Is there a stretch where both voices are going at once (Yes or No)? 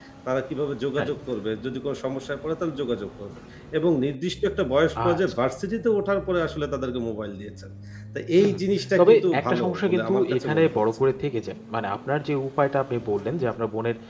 Yes